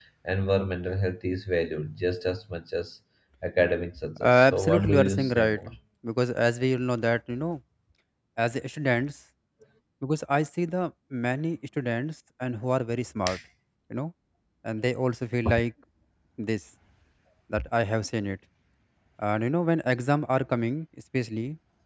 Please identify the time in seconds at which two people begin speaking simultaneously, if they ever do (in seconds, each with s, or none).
4.2 s